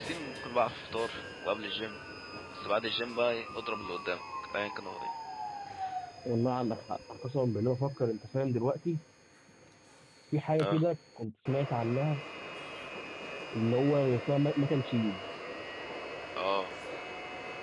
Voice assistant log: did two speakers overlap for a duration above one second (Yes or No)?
No